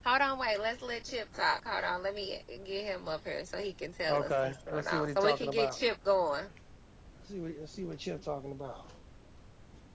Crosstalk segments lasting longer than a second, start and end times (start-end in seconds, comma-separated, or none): 4.1-5.8